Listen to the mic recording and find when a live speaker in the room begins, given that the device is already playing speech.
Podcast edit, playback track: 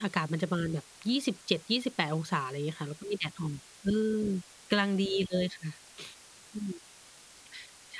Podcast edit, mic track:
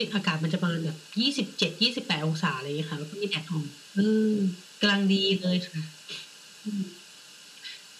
none

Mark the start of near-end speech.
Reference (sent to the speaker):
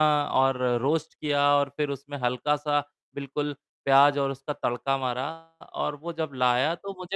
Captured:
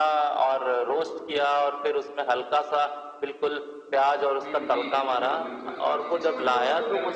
4.4 s

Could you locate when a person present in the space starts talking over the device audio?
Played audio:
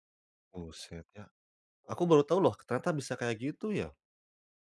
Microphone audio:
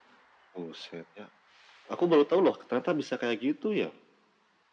none

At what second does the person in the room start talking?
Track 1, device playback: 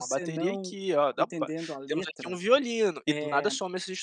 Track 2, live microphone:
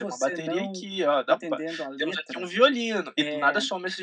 none

